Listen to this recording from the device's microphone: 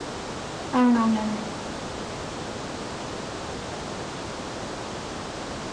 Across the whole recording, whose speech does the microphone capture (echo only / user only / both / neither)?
user only